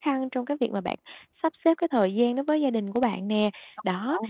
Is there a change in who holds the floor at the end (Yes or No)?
No